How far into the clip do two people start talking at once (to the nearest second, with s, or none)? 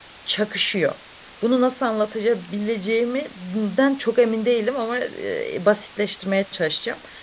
none